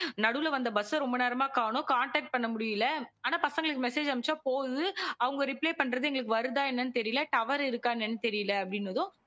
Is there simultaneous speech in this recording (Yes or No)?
No